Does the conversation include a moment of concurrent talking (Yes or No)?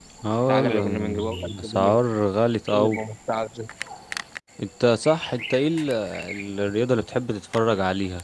Yes